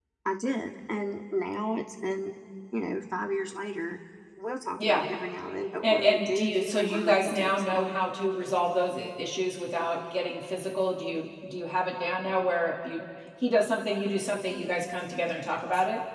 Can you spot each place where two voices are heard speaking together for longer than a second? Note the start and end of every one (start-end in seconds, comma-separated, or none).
5.8-8.0